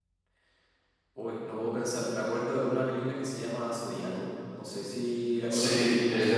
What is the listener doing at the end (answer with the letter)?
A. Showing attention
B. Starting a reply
B